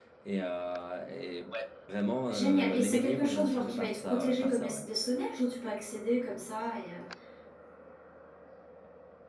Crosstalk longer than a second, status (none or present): present